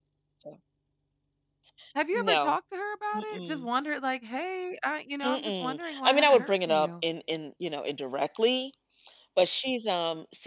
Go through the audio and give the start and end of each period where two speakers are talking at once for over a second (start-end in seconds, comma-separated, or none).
5.2-6.9